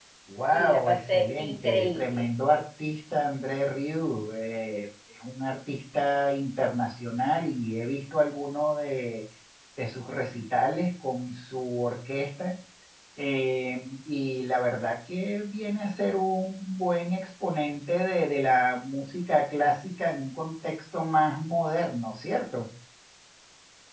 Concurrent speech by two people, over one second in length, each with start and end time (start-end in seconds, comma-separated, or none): 0.5-2.3